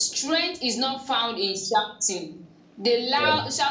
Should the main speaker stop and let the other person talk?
No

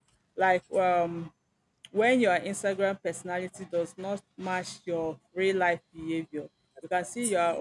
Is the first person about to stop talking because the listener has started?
No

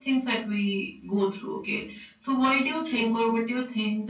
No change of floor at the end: Yes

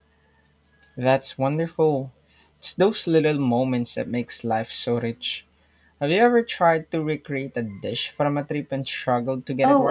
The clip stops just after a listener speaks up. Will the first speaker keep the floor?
No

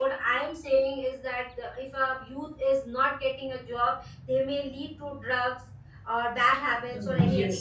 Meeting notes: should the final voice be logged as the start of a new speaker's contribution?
Yes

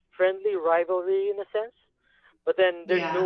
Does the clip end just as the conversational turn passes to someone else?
No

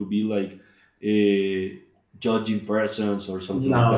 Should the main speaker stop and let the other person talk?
Yes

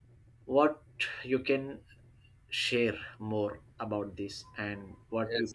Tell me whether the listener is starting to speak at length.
Yes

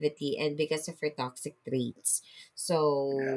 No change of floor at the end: Yes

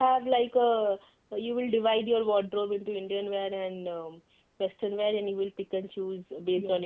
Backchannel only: No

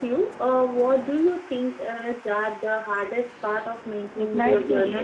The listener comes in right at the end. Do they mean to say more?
Yes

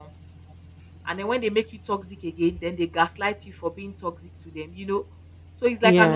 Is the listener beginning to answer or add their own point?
No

